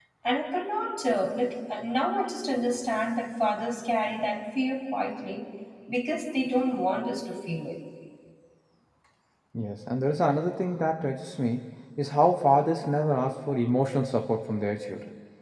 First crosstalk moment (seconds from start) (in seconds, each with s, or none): none